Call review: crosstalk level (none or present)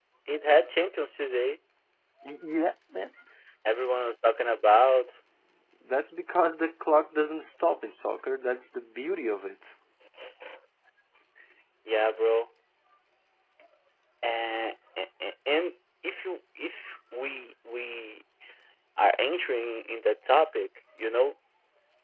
none